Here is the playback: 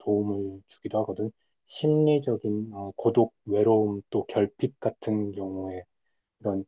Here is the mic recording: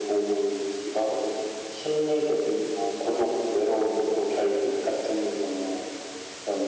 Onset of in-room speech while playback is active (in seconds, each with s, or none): none